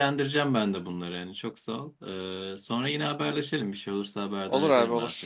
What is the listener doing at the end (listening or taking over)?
taking over